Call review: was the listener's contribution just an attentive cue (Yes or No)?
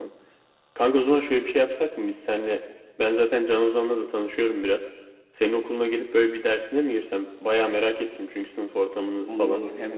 No